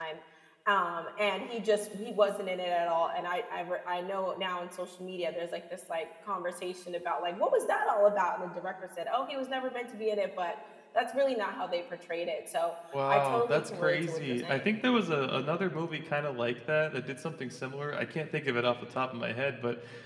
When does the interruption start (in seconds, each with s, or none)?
12.9 s